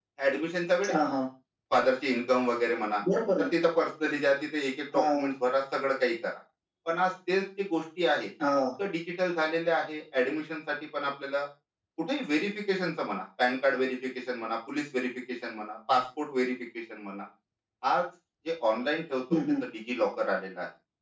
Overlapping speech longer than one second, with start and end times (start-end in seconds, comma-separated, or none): none